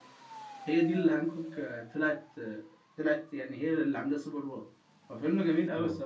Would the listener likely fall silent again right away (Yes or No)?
Yes